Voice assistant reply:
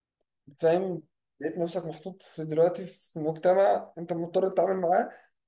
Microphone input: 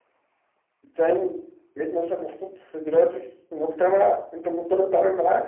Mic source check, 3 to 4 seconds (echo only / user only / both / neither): echo only